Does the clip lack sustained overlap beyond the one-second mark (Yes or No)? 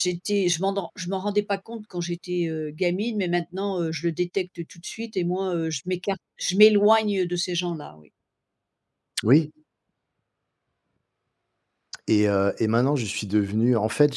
Yes